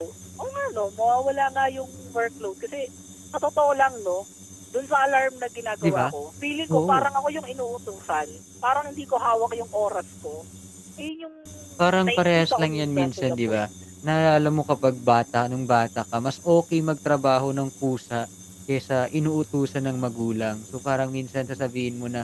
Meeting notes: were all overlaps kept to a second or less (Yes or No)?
No